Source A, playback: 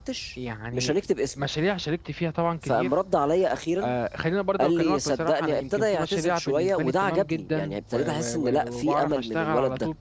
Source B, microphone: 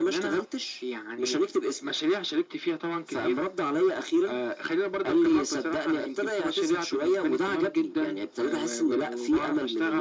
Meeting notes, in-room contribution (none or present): none